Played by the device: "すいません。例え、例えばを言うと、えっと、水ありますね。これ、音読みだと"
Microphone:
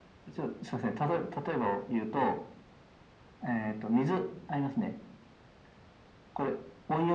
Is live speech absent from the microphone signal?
Yes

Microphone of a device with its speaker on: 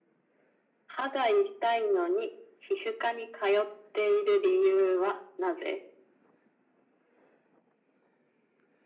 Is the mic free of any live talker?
Yes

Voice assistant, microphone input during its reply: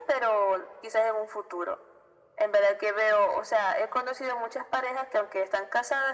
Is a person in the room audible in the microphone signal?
No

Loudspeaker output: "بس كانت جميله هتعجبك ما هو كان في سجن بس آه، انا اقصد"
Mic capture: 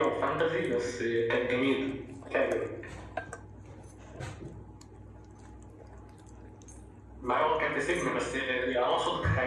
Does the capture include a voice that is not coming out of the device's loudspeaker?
No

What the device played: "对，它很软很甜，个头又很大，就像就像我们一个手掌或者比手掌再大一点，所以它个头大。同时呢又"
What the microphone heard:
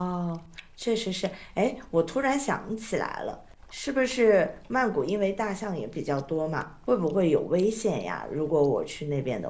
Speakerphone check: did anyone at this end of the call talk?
Yes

